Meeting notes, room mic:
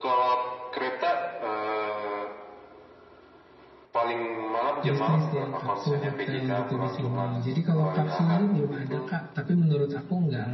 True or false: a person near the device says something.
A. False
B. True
B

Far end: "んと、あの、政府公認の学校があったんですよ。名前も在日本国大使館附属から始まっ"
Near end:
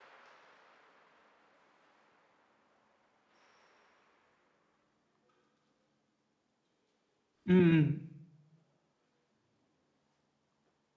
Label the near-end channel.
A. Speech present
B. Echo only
A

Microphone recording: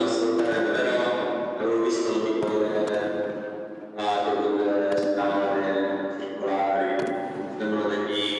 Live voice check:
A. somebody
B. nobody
B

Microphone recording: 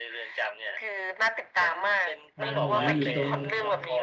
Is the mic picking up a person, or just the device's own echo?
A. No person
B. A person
B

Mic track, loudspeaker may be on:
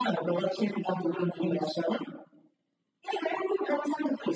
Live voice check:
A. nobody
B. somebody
A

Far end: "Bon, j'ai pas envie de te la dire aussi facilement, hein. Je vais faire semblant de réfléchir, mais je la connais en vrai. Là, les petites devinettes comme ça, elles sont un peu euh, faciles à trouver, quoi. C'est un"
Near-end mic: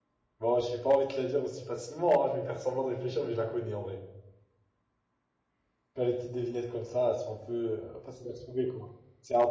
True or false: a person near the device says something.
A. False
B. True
A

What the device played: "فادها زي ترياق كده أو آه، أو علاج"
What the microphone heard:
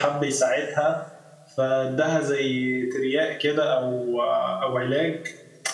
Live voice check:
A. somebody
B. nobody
B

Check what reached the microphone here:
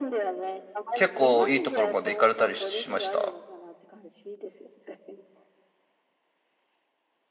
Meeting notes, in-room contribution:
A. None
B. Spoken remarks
B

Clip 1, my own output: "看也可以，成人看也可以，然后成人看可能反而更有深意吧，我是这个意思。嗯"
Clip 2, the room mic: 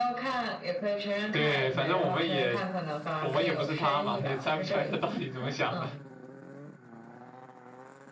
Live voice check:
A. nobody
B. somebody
B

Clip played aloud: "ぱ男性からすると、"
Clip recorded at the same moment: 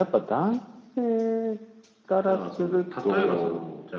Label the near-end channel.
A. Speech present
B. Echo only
A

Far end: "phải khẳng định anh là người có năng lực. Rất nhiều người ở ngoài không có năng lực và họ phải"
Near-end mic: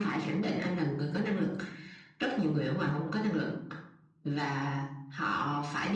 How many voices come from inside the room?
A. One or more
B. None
B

